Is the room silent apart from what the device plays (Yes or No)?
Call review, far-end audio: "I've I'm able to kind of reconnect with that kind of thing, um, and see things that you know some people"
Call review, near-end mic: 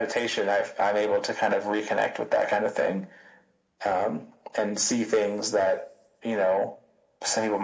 Yes